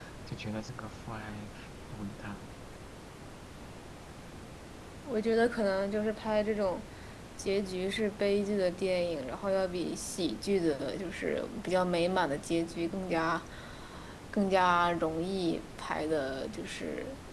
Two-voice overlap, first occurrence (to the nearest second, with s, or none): none